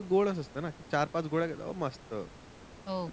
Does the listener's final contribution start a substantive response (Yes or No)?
Yes